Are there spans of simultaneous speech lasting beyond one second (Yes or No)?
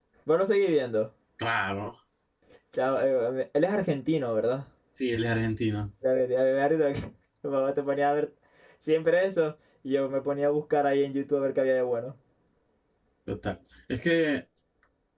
No